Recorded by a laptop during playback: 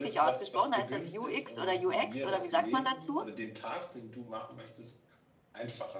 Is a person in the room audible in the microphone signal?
Yes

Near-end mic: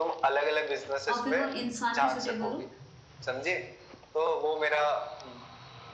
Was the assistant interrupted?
Yes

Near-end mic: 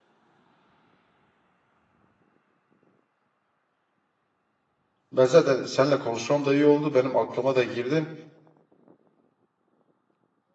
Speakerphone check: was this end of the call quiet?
No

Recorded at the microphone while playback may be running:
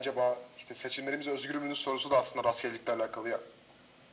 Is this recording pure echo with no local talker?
Yes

